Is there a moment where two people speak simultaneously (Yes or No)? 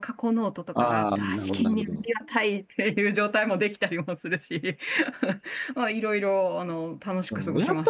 Yes